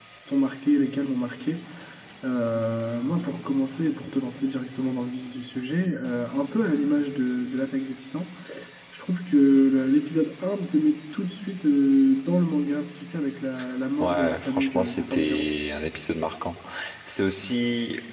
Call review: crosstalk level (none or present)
present